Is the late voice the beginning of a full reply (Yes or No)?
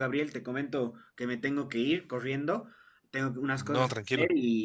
No